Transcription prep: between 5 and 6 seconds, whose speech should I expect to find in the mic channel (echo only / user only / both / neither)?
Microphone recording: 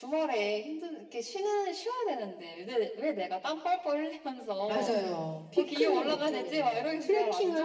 both